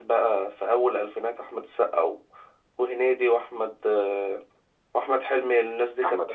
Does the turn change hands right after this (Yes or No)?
Yes